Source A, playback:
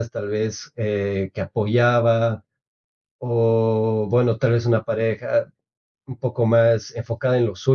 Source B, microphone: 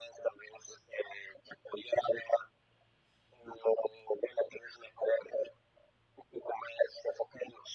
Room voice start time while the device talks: none

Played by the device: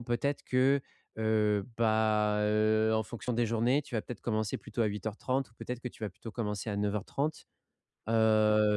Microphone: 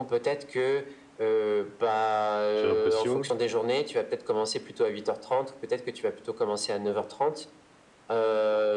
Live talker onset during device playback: 2.5 s

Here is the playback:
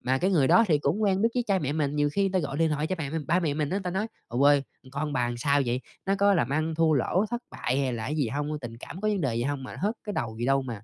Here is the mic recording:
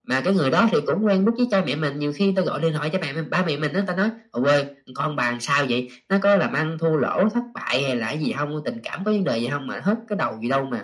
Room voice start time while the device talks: none

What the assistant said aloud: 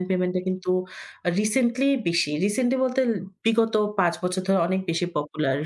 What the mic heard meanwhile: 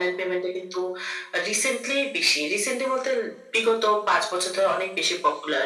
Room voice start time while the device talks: none

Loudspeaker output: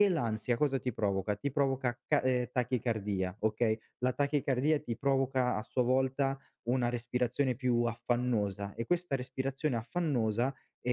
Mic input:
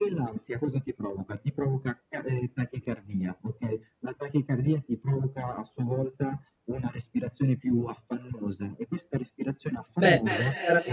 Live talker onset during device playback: 10.0 s

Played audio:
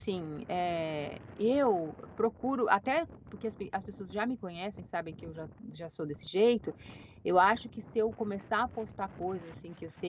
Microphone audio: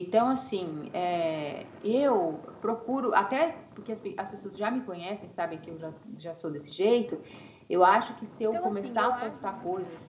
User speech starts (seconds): 8.4 s

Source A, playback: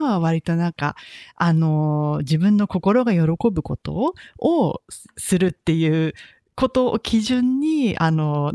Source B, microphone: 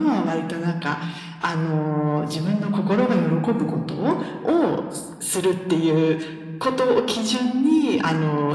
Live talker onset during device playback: none

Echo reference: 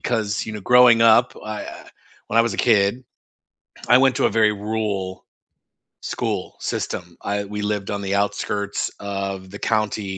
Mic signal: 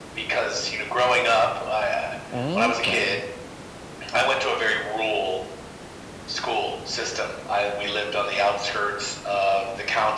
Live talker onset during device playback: 2.3 s

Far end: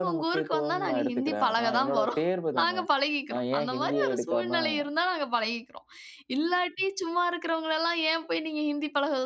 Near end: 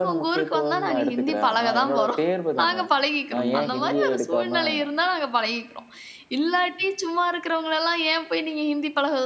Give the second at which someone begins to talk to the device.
3.3 s

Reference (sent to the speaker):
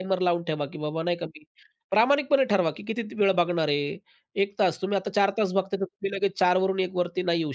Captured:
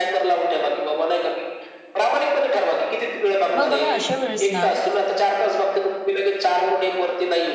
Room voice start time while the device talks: 3.6 s

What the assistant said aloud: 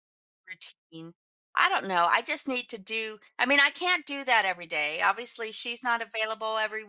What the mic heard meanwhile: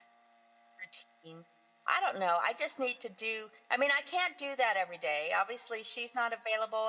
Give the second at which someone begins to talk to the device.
none

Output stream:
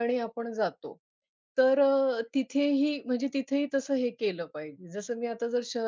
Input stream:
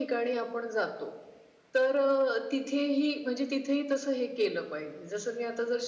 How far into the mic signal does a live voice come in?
none

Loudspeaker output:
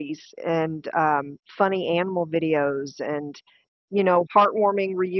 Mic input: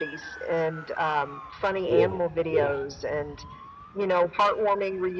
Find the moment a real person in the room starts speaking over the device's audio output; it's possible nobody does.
1.8 s

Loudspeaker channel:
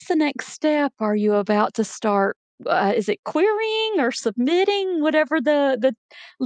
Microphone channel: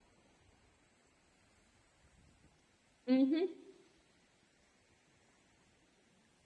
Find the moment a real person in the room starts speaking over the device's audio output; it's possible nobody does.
3.1 s

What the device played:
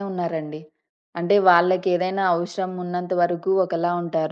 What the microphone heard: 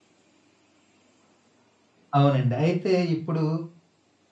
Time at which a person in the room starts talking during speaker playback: 2.2 s

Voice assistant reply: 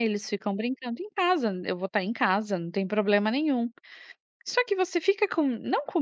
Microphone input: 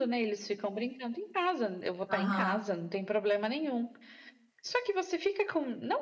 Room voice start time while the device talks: 2.1 s

